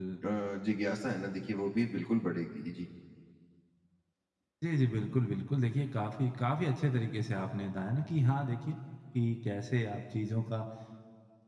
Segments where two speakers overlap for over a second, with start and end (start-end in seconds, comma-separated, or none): none